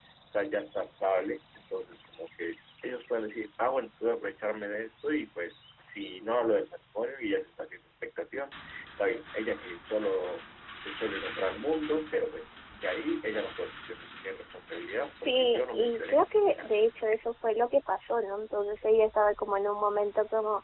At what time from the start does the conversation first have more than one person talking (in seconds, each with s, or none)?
15.3 s